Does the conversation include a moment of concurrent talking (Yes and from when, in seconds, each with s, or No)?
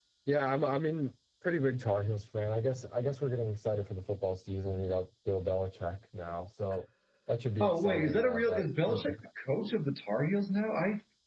Yes, from 7.6 s